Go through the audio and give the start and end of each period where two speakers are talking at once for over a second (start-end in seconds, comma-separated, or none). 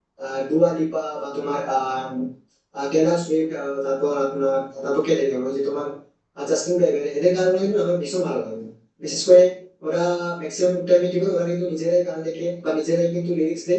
none